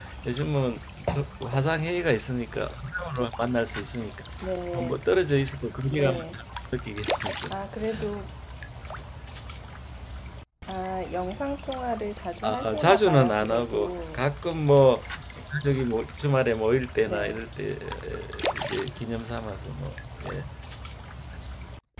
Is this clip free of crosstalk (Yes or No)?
No